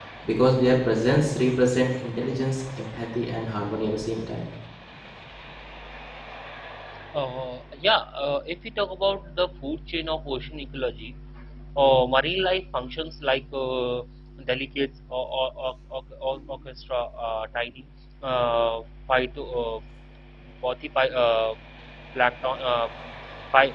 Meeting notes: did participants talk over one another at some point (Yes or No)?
No